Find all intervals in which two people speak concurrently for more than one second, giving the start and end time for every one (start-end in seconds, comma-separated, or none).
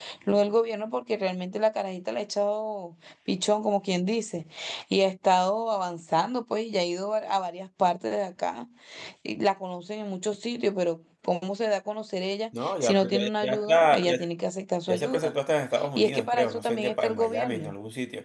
12.6-14.2, 16.0-17.7